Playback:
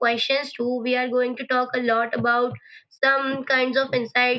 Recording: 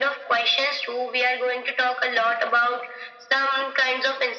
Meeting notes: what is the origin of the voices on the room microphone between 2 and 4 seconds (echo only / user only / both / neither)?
echo only